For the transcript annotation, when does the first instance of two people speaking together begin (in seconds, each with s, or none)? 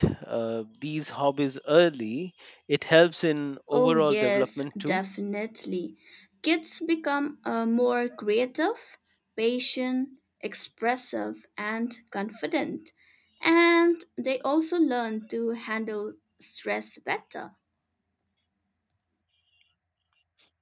3.7 s